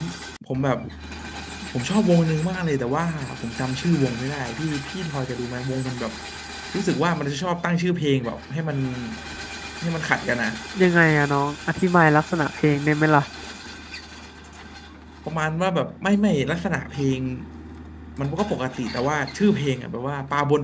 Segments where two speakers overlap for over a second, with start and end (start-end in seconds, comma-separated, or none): none